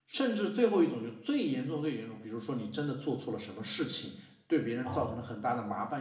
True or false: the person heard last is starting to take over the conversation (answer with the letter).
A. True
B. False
B